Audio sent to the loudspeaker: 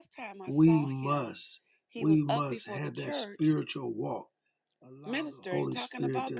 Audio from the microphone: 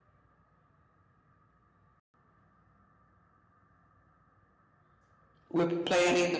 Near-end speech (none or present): present